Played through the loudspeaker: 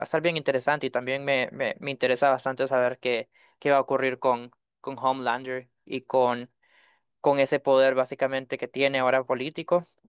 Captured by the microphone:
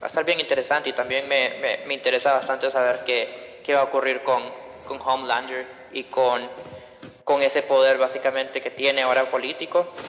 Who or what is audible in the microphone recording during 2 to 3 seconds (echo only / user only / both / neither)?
echo only